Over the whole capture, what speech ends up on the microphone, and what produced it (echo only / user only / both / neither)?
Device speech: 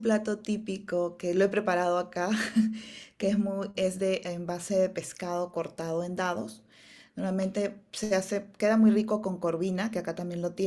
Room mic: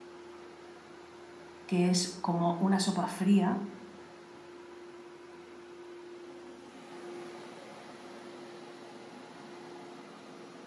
user only